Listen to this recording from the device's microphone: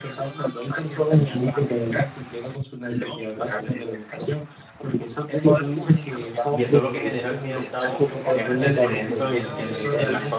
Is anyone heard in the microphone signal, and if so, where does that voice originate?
both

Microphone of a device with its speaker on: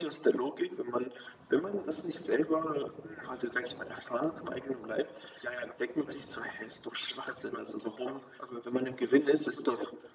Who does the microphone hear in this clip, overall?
echo only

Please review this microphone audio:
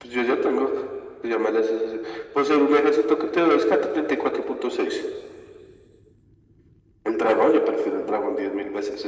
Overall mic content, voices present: echo only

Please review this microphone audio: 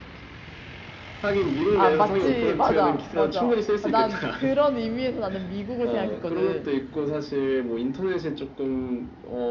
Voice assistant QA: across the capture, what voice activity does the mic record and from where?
both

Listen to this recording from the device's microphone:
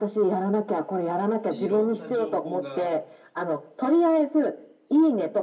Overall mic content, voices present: both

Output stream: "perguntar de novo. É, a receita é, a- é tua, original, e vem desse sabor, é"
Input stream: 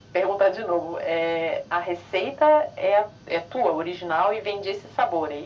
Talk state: echo only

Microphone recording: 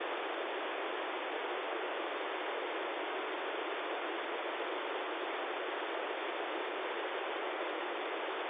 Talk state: neither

